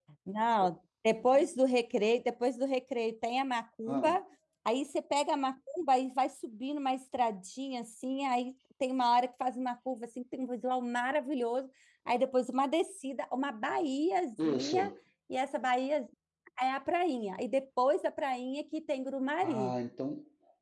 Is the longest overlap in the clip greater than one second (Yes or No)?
No